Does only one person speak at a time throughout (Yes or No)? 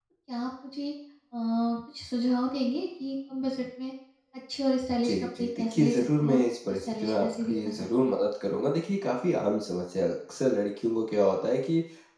No